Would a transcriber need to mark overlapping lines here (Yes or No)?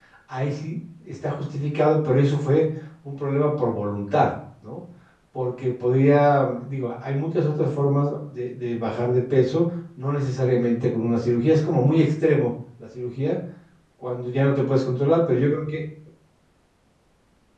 No